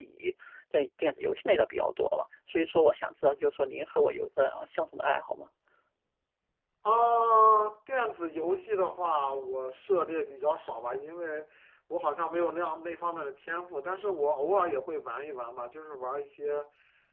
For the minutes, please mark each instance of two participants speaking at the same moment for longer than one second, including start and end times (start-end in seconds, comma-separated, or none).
none